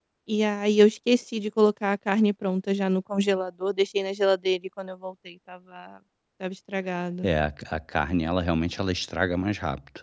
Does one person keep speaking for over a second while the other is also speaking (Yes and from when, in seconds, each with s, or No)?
No